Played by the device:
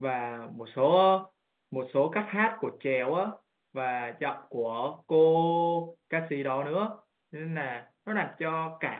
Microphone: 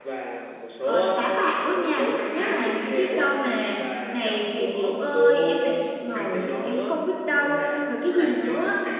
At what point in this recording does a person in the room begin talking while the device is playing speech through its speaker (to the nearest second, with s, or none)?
1 s